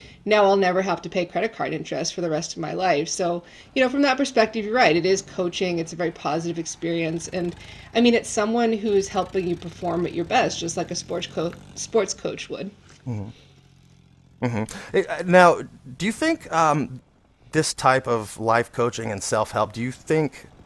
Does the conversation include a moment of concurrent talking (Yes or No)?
No